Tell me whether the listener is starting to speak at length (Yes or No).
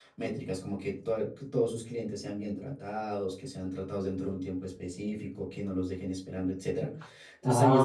Yes